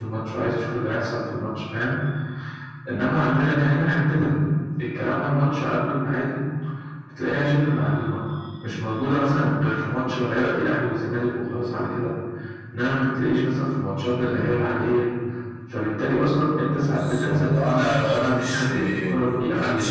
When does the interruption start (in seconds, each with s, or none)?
16.8 s